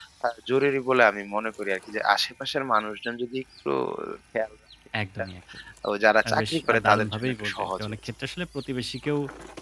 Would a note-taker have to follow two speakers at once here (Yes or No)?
Yes